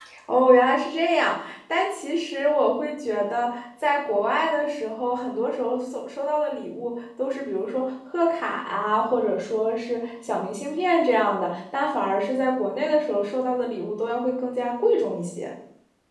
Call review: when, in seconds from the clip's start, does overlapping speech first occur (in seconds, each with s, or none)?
none